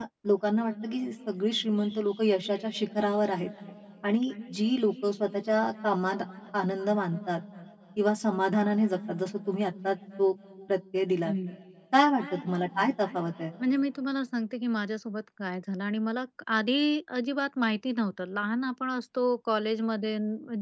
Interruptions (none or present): none